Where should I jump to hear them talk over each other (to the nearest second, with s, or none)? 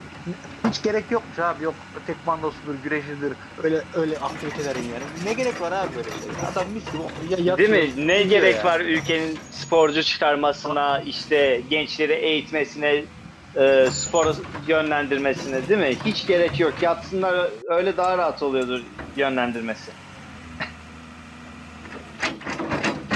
7 s